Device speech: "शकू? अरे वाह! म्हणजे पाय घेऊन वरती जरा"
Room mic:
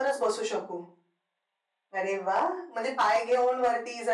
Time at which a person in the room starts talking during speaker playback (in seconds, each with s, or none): none